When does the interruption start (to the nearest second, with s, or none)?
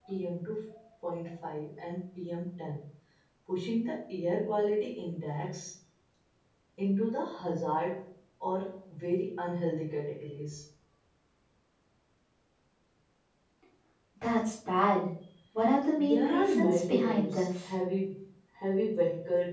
16 s